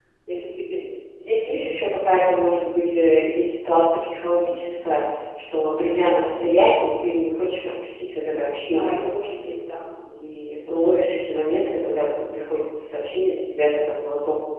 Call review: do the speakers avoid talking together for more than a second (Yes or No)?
Yes